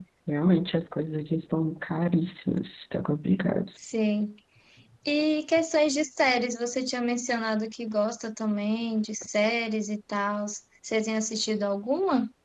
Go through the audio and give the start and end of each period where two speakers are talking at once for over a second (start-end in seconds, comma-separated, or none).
none